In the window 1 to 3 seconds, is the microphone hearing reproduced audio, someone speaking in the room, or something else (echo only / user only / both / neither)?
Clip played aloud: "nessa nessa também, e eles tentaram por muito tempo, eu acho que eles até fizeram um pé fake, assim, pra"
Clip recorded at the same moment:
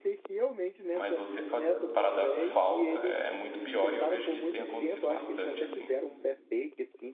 both